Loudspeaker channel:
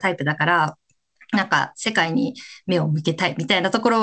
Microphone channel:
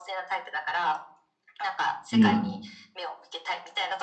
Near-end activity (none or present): present